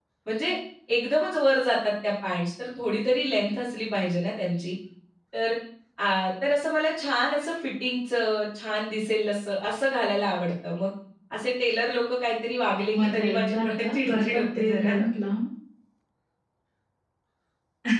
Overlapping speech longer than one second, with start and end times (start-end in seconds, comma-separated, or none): 12.9-14.9